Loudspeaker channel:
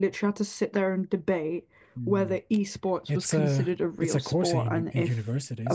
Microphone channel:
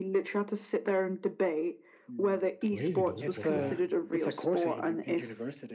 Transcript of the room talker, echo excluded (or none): Crazy golf. What's that?